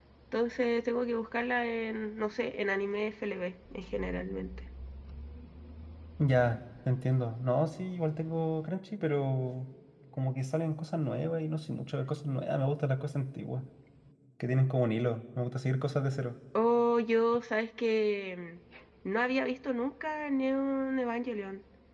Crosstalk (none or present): none